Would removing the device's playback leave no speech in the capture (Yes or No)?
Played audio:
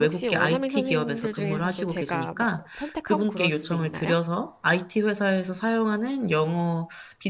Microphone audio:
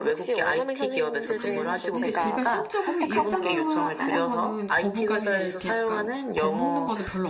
No